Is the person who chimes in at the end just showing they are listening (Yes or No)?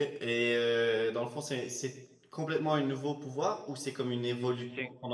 No